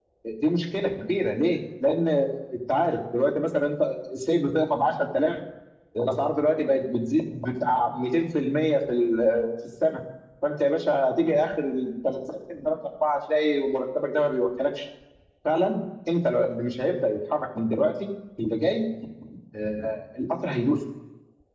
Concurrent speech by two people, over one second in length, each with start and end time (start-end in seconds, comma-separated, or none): none